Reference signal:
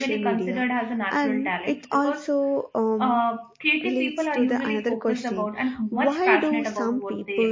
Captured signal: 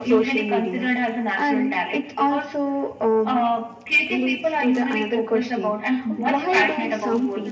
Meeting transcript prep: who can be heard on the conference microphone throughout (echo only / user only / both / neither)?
both